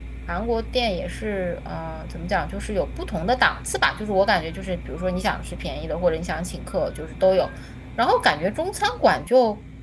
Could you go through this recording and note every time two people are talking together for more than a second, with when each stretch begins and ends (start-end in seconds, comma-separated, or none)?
none